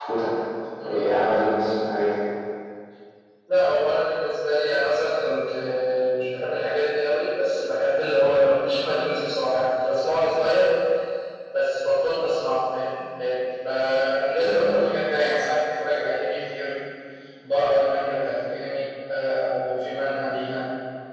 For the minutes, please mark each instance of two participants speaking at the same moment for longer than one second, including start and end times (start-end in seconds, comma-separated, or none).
none